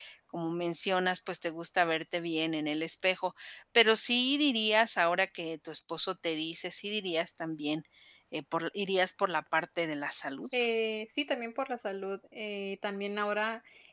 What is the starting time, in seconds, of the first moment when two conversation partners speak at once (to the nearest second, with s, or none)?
none